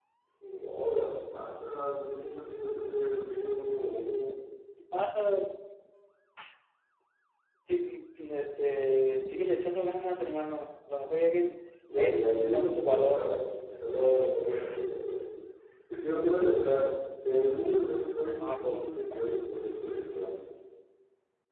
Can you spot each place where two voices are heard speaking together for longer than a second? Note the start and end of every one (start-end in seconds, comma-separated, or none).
12.0-13.4